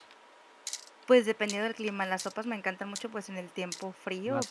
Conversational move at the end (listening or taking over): listening